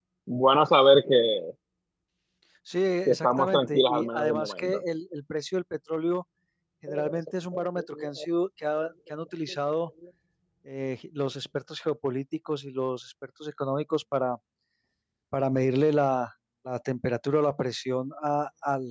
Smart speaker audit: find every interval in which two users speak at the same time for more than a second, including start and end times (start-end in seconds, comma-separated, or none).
3.0-4.8